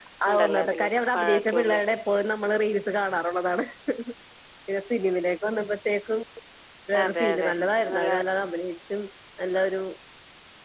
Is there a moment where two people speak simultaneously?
Yes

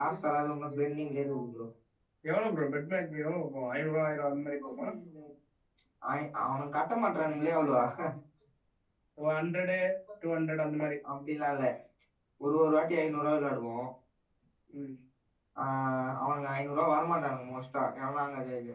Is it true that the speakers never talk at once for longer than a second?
Yes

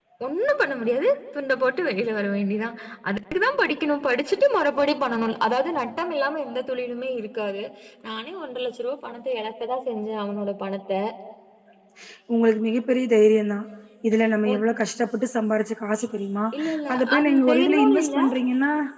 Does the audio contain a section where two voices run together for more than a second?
Yes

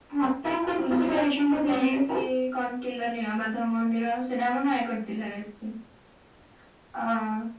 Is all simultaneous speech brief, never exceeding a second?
No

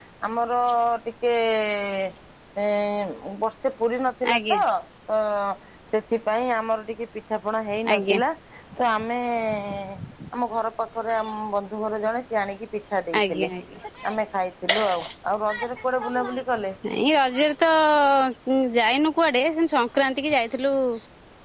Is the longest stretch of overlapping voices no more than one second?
Yes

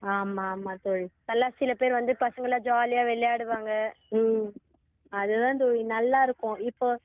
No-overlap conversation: Yes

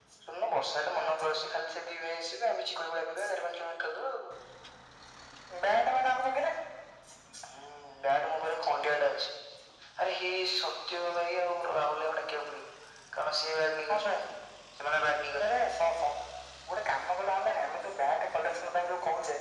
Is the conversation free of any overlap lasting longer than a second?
Yes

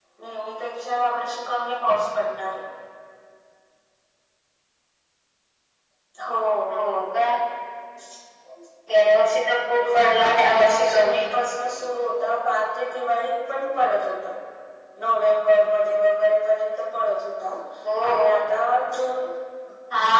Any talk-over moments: Yes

